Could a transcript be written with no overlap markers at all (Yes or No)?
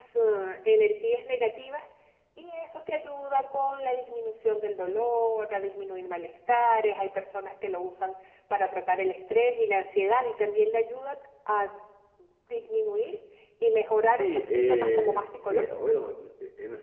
No